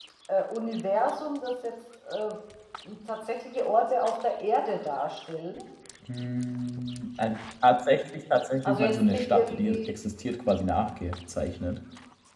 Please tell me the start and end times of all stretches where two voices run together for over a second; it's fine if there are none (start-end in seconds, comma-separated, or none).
8.7-9.9